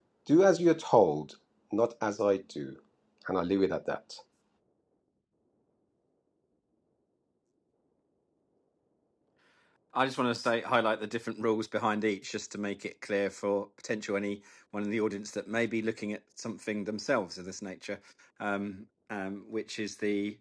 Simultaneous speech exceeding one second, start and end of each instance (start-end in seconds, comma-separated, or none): none